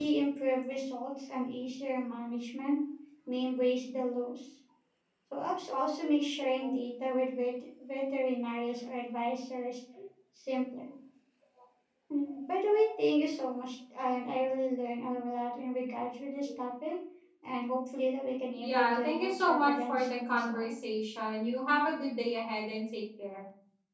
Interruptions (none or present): present